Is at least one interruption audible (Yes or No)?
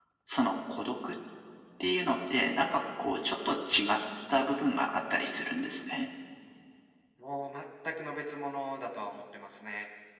No